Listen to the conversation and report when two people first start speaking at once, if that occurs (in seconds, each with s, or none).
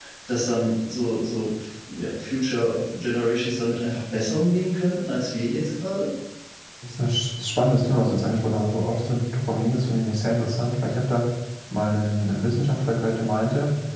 none